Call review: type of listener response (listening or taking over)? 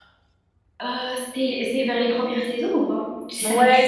taking over